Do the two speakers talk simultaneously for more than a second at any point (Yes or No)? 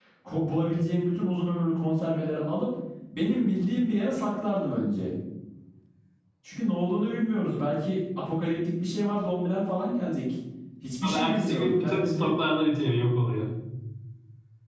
Yes